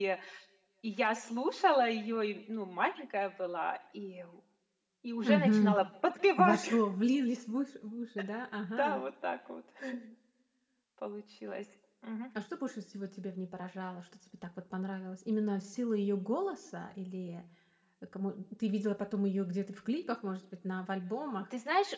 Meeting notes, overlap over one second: none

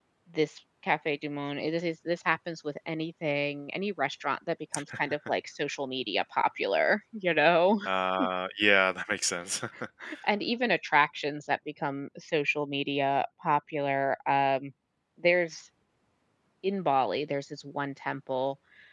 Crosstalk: none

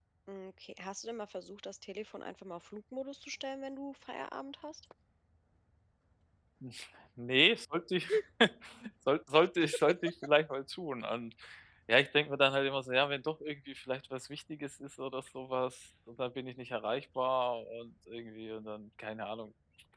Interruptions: none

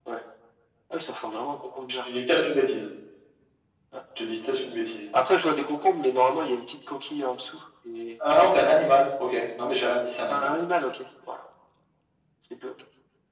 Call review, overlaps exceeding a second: none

